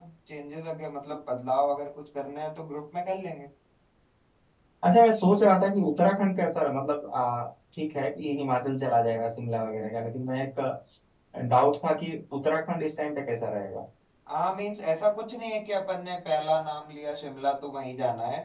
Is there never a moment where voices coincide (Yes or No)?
Yes